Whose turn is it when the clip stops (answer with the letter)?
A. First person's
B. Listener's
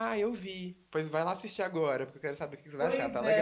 B